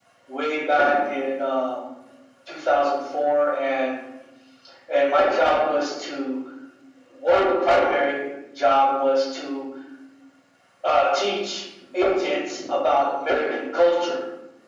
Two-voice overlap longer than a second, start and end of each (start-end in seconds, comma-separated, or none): none